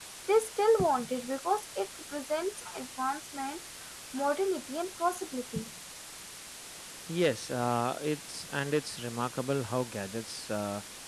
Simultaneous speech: No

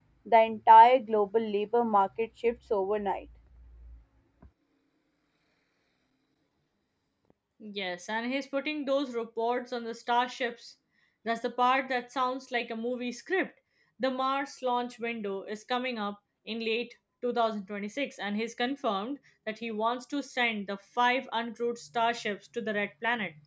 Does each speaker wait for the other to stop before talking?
Yes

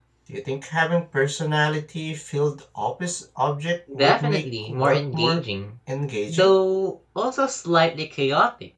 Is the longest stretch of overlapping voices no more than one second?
No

